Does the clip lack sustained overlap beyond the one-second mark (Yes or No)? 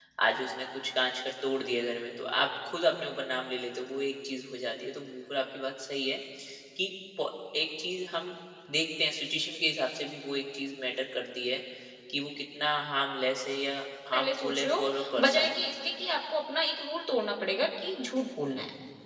No